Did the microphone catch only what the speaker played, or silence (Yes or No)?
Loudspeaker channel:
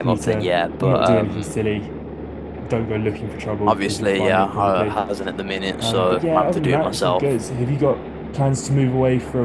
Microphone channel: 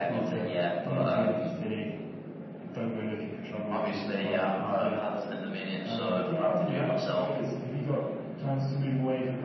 Yes